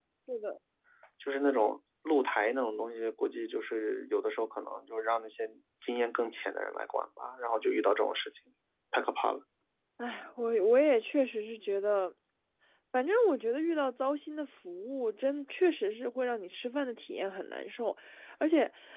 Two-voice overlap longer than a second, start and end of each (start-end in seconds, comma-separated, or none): none